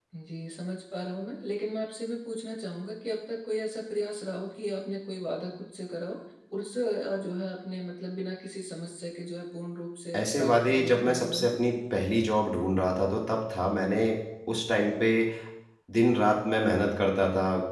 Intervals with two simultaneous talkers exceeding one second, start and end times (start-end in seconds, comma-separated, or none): 10.2-11.6